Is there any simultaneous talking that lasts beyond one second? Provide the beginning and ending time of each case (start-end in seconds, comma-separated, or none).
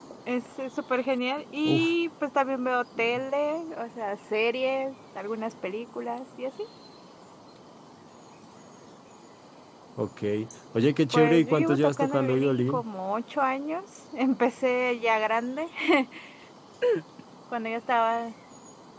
11.1-12.8